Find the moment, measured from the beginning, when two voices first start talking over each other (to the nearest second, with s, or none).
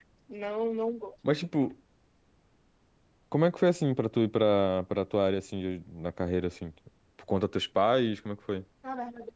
none